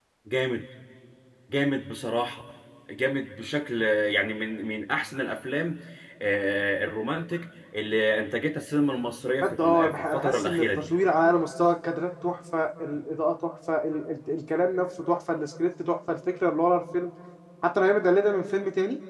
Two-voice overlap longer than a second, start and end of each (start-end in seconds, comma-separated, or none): 9.4-10.9